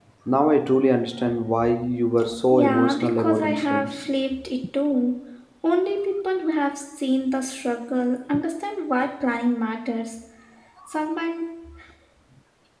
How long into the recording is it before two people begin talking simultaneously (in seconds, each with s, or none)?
2.5 s